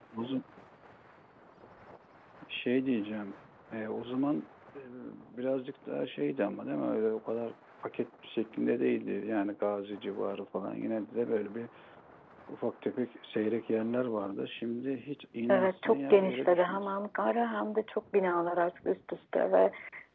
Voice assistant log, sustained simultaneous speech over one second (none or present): present